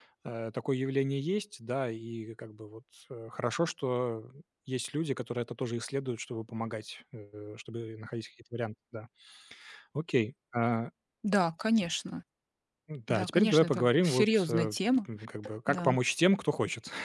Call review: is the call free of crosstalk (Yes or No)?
No